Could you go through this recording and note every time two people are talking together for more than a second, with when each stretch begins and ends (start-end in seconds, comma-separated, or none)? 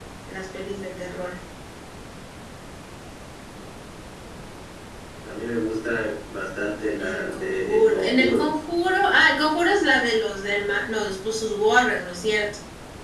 7.0-8.5